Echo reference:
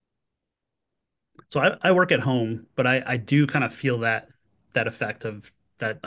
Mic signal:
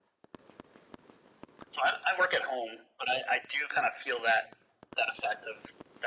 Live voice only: none

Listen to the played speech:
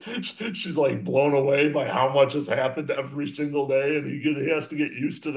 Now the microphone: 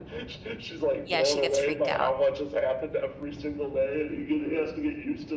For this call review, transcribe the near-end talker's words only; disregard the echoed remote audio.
yeah, she gets freaked out.

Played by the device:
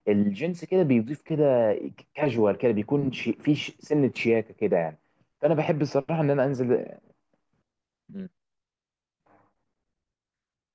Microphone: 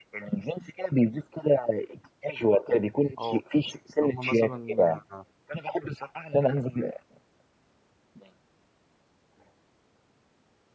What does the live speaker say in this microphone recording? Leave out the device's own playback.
اه اللي هم مثلا

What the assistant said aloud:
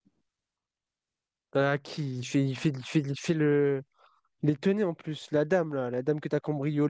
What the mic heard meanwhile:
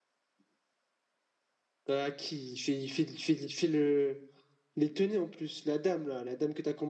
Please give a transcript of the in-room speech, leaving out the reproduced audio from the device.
none

